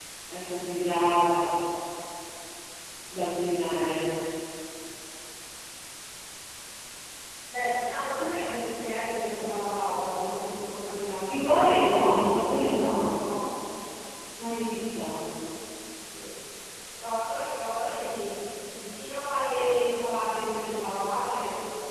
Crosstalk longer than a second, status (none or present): present